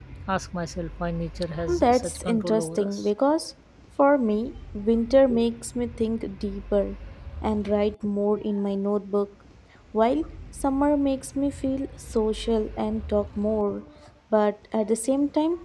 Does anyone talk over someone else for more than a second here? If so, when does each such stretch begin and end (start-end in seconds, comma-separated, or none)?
1.8-3.1